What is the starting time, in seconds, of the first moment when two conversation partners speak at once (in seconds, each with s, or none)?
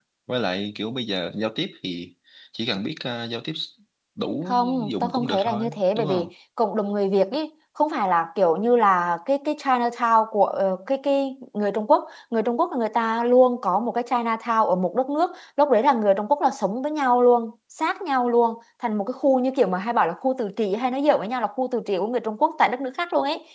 4.5 s